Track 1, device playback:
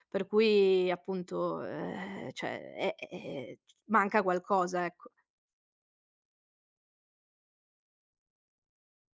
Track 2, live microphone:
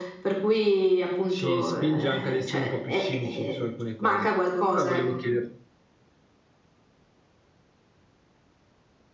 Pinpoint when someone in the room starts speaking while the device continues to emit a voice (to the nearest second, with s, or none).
1 s